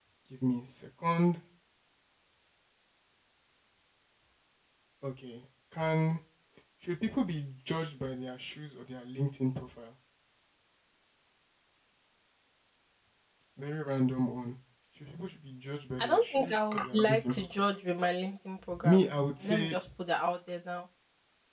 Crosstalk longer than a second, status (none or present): present